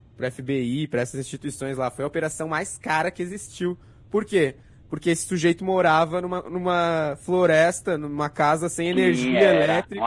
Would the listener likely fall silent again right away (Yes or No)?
No